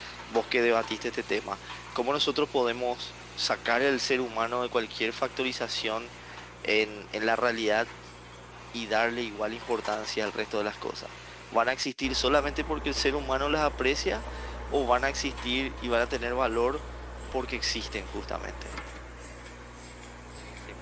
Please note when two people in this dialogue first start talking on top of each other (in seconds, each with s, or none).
none